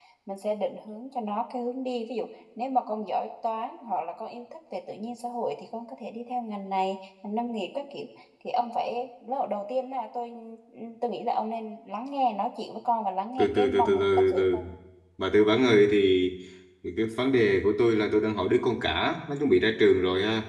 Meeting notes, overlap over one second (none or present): present